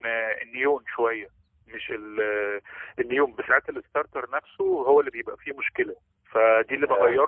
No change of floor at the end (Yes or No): Yes